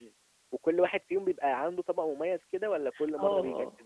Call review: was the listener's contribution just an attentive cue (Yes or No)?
No